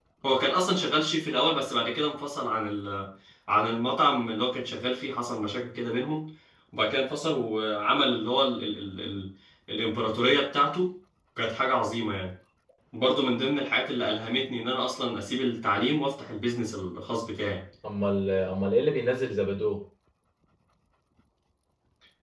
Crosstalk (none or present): none